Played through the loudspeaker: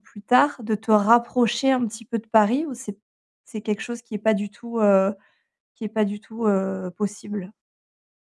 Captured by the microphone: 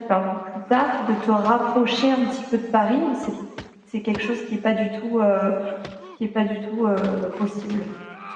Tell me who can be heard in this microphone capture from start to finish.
echo only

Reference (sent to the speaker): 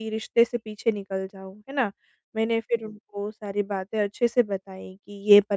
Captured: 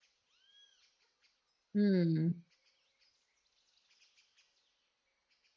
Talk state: user only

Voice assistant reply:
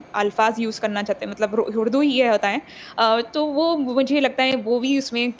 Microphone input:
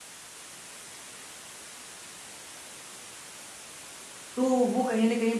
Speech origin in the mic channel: user only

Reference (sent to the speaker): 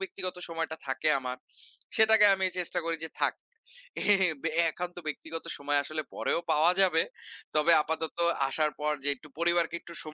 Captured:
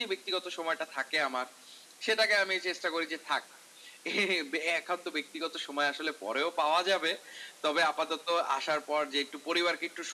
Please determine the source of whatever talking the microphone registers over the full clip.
echo only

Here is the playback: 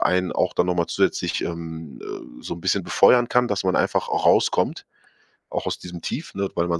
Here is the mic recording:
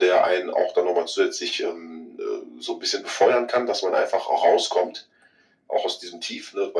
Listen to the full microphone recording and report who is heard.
echo only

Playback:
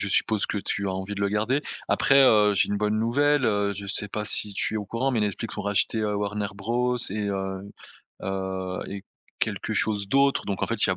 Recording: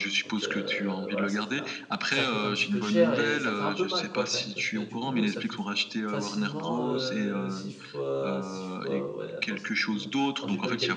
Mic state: both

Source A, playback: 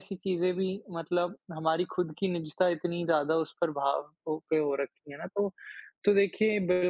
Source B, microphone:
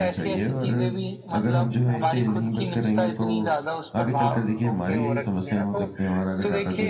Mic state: both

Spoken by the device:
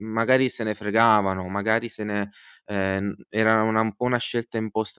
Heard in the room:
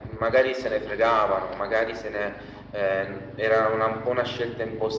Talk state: echo only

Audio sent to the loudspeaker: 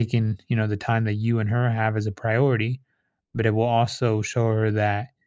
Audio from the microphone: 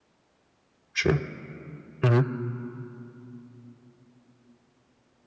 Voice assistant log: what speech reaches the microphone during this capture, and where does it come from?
user only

